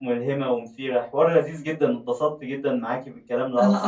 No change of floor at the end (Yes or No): Yes